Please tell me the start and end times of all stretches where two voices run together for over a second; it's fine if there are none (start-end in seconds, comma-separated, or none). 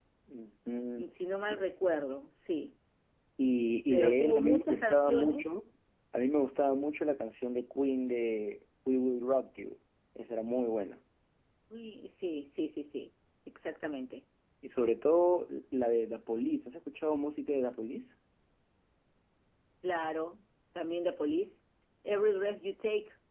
3.9-5.5